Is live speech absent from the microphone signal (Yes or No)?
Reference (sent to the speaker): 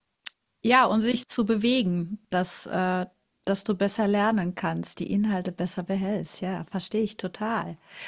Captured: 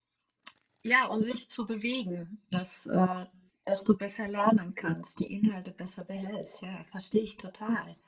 Yes